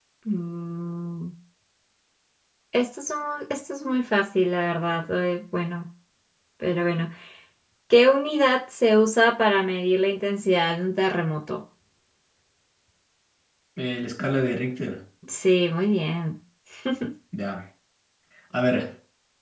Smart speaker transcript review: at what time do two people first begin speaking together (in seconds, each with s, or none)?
none